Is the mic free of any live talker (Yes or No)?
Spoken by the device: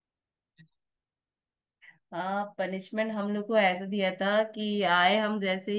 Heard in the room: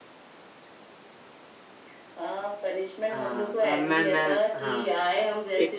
No